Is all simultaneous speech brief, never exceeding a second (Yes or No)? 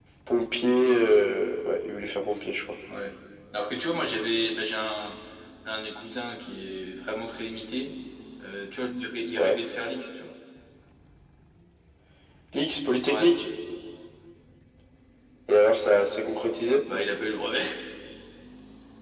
Yes